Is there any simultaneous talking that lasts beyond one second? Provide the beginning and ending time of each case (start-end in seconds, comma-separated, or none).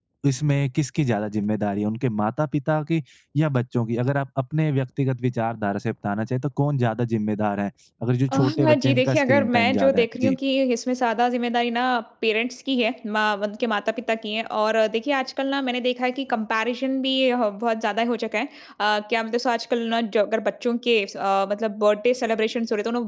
8.3-10.4